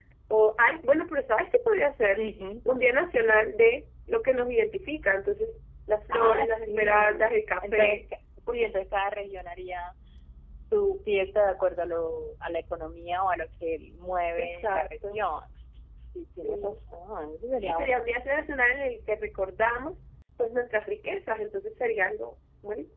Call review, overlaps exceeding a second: present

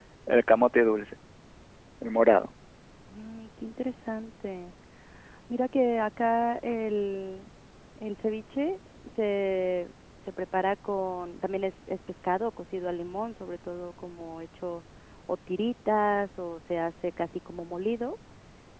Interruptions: none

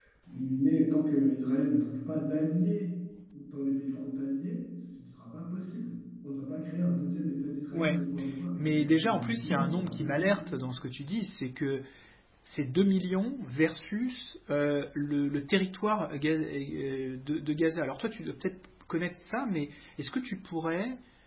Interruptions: present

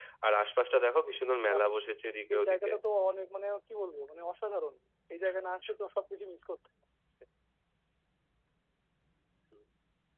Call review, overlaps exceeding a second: none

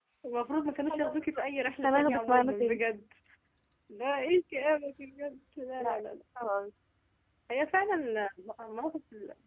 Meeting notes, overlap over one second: present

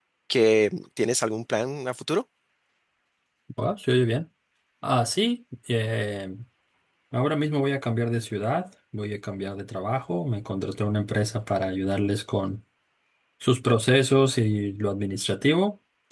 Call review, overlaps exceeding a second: none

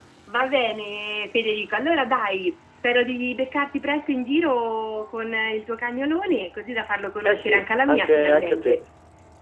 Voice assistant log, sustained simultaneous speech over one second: present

